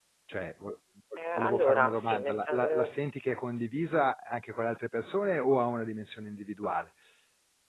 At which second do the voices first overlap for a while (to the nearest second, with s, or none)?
1 s